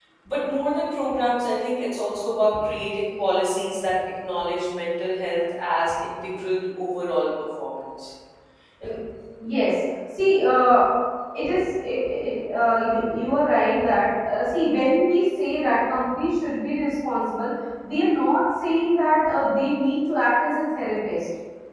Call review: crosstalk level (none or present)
none